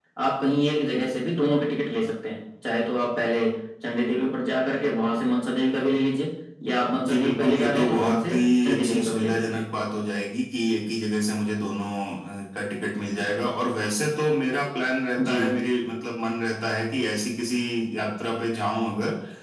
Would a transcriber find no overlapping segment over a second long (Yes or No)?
No